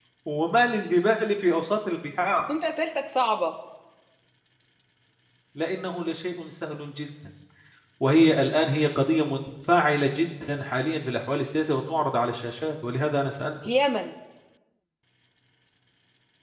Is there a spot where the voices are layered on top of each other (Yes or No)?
No